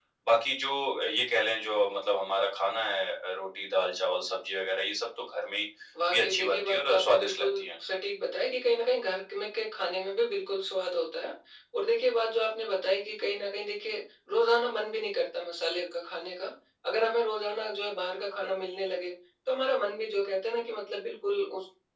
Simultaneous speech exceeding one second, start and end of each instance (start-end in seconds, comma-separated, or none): 6.1-7.6